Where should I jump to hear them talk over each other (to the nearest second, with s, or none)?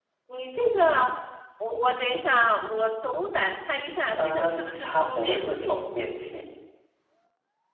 4 s